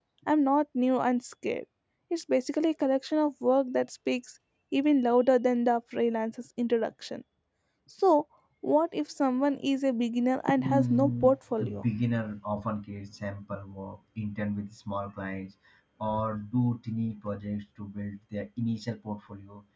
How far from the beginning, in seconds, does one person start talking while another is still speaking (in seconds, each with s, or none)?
10.5 s